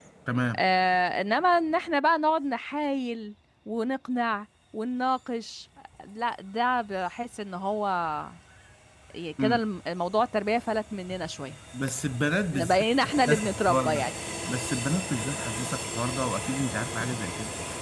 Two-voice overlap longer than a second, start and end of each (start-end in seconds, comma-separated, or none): 12.5-14.1